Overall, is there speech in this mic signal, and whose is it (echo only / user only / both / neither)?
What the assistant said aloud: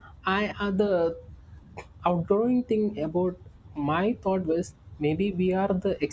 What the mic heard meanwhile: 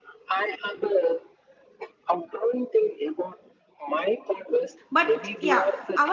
both